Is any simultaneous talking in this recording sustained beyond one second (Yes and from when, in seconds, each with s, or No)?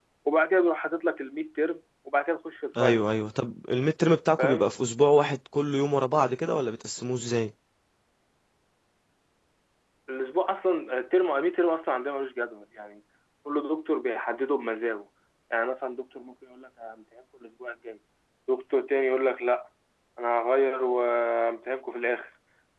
No